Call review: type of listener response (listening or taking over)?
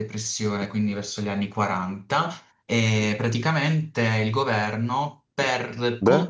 listening